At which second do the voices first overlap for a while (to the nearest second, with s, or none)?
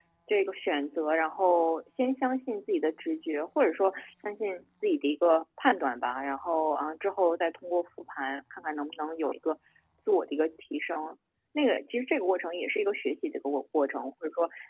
none